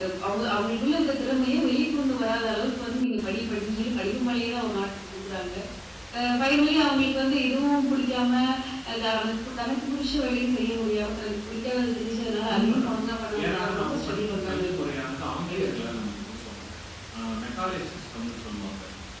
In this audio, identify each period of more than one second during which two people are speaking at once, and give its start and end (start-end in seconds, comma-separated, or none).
13.4-14.9